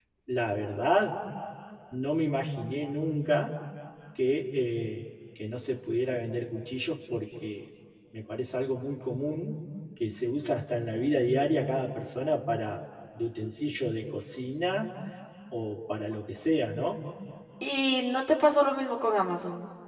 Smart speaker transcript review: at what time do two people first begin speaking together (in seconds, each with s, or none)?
none